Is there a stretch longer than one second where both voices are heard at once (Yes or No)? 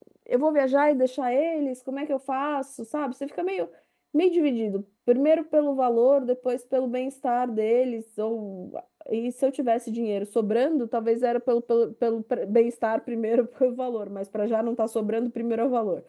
No